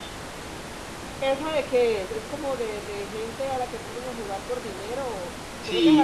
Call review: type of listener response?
taking over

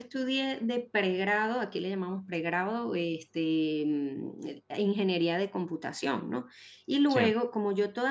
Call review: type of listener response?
listening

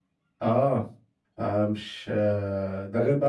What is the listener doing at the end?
listening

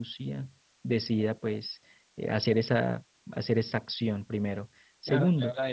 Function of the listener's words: taking over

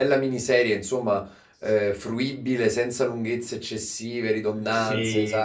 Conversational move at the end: taking over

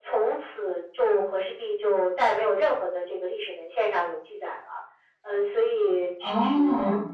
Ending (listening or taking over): listening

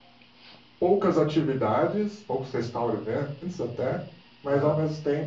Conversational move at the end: listening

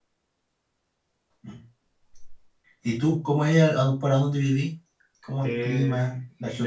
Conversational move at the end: taking over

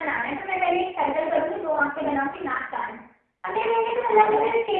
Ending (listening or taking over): listening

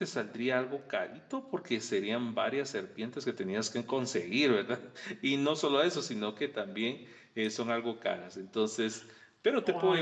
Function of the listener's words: taking over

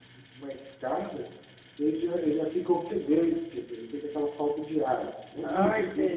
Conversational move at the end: taking over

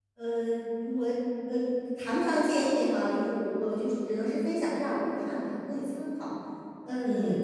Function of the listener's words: listening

